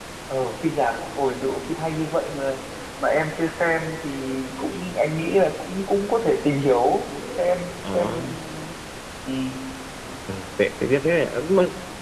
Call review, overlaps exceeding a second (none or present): none